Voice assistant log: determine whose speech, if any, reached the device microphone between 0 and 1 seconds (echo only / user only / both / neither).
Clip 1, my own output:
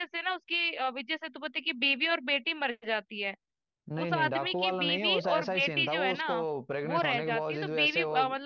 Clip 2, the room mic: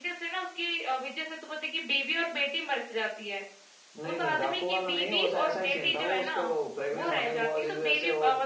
echo only